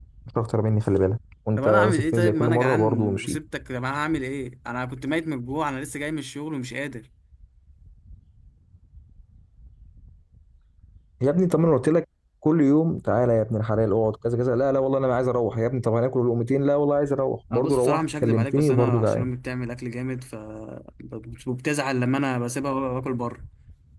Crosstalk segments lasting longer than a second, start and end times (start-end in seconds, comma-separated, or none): 1.6-3.4, 17.5-19.3